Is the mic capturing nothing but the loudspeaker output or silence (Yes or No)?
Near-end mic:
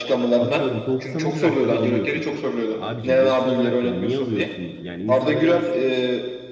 No